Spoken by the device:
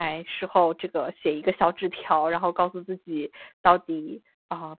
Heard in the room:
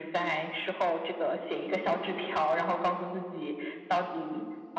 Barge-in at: none

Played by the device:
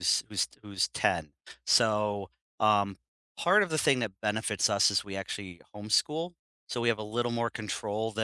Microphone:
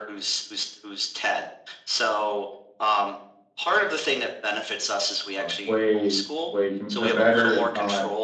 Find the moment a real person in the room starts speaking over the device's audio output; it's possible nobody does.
5.4 s

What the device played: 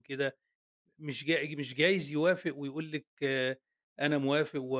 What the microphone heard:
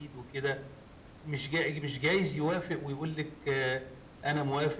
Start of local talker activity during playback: none

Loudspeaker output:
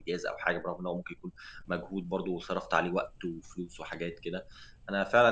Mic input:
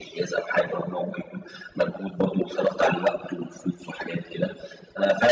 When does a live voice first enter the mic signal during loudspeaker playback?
none

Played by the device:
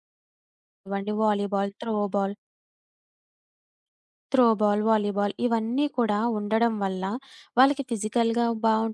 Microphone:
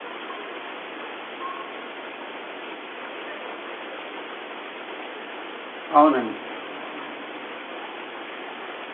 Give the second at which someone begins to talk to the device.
6.0 s

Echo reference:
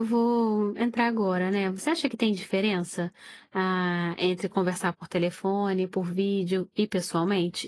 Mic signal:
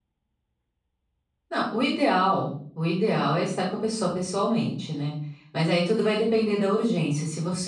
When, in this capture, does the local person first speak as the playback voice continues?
1.5 s

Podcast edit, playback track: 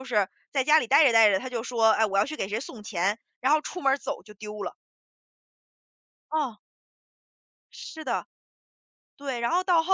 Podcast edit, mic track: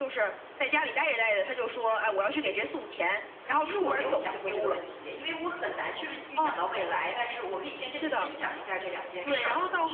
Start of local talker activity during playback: 3.6 s

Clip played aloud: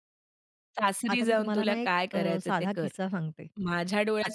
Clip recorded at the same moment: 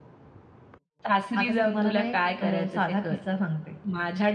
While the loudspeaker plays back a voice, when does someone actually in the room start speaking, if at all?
none

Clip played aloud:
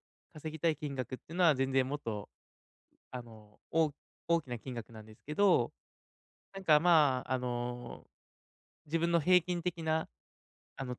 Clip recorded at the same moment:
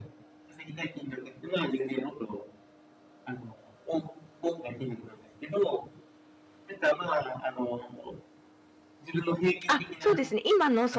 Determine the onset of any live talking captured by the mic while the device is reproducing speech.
9.7 s

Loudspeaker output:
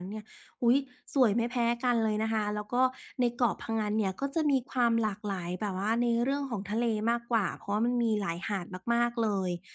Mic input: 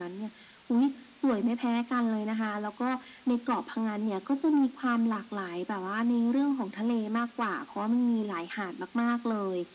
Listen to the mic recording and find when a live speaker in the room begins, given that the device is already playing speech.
none

